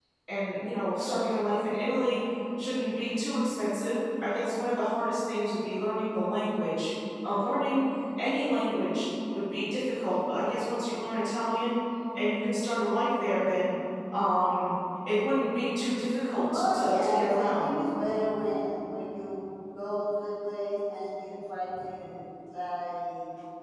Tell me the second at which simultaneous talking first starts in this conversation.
16.5 s

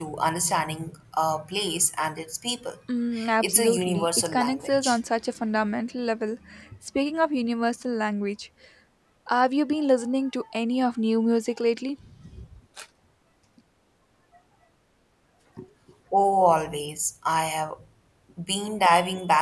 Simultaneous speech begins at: 3.4 s

